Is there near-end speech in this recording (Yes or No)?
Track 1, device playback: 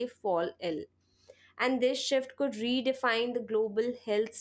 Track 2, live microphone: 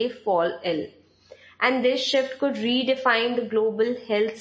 No